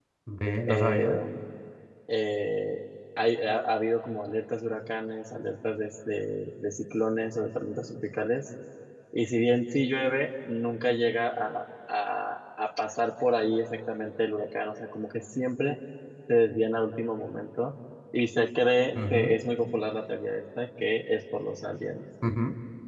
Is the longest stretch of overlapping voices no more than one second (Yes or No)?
Yes